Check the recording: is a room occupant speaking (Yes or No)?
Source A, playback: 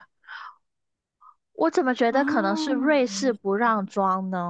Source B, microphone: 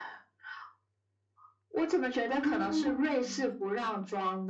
No